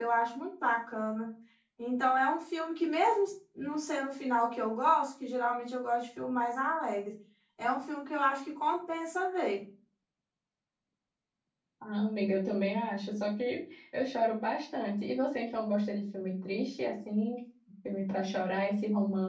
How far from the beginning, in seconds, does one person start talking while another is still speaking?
none

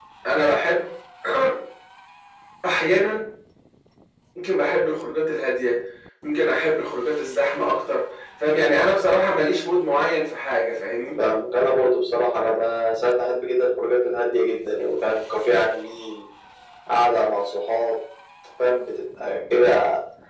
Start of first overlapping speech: none

